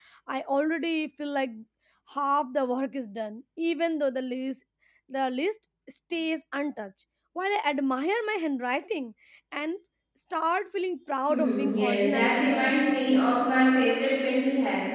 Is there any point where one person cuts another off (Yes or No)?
Yes